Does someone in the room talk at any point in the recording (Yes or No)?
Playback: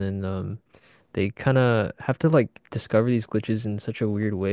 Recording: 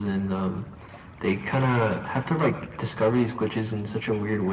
No